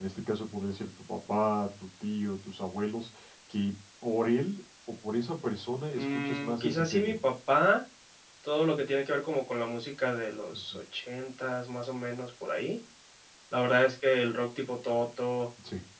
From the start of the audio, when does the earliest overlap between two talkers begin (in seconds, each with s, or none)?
6.0 s